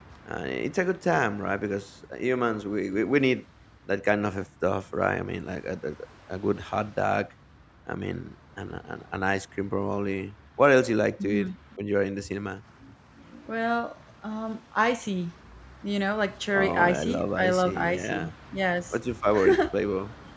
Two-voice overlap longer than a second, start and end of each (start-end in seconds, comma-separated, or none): 16.6-18.2